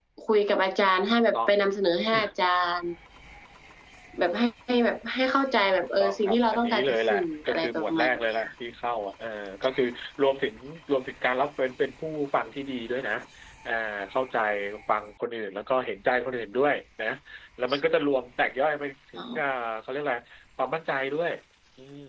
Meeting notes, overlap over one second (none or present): present